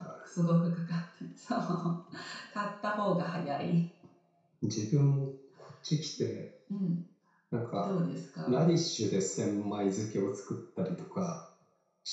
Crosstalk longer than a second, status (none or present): none